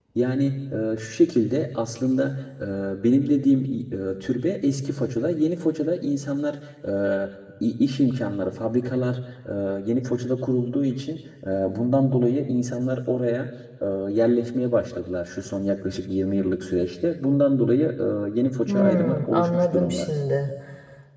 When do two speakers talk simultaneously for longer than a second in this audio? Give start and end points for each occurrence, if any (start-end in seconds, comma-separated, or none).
18.7-20.1